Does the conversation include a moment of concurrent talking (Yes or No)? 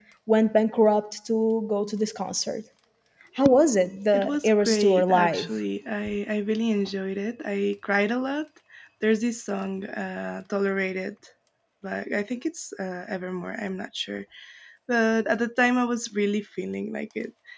Yes